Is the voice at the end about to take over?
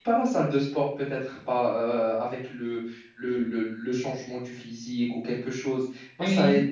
No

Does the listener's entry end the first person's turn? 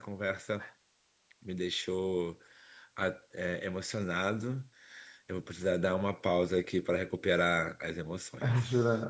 Yes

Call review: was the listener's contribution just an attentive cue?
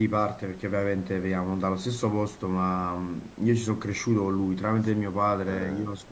Yes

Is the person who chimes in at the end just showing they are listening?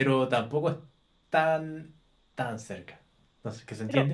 Yes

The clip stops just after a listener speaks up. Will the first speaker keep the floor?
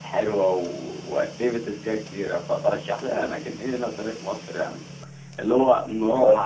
Yes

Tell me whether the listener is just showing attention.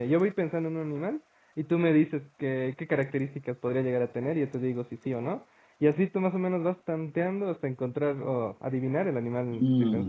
No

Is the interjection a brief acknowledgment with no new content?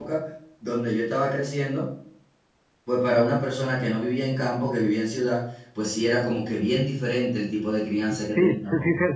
No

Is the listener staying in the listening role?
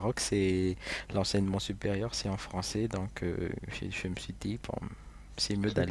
No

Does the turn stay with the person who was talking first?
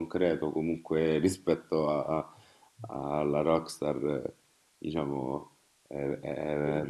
Yes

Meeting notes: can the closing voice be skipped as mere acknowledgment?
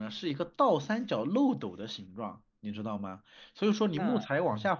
Yes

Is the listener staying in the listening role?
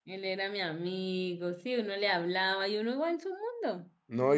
No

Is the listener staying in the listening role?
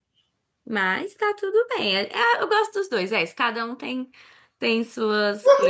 No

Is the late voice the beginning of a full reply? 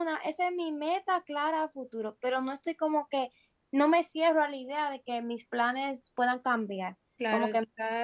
Yes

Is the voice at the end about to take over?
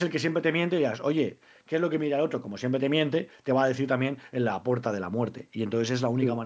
No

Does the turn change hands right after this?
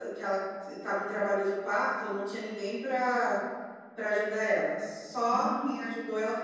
No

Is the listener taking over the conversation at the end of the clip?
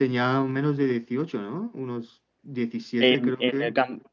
Yes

